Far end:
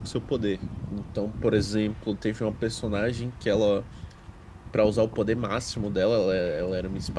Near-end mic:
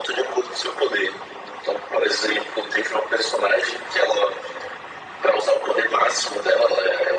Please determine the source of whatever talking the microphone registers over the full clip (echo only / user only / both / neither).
echo only